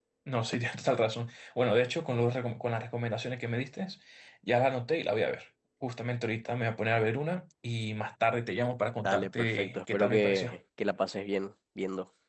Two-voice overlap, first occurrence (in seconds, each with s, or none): 9.0 s